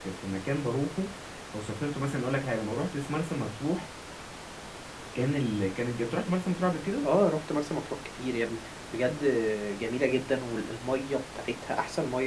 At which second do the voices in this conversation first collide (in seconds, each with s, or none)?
none